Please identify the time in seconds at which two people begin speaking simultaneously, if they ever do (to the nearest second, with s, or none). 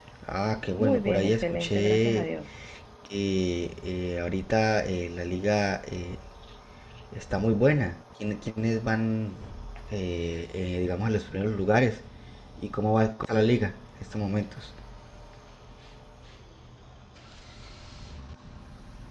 1 s